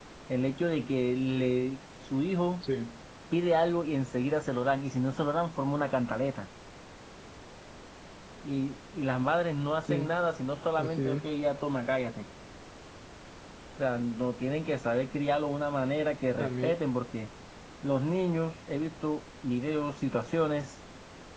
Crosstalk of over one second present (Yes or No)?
No